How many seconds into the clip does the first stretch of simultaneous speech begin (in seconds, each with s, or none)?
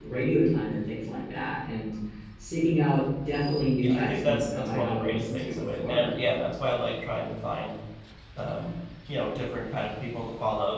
3.8 s